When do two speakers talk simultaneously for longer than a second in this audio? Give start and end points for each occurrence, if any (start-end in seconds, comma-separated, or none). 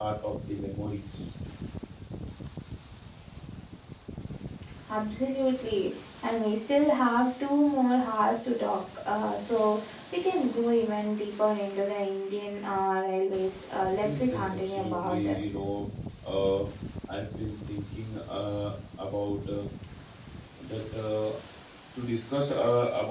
14.0-15.5